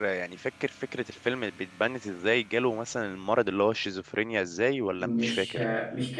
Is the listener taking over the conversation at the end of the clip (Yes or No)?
Yes